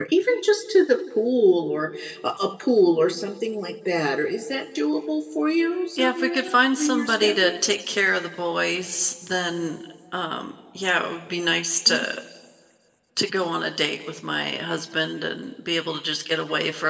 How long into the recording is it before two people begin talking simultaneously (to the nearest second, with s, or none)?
6 s